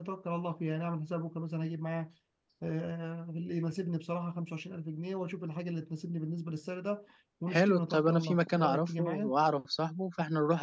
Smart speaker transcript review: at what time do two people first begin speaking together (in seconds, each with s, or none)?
7.5 s